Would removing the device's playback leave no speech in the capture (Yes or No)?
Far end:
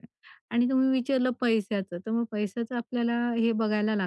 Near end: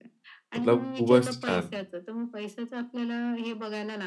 No